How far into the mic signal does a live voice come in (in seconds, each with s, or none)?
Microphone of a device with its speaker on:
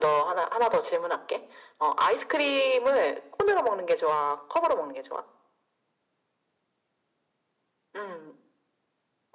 none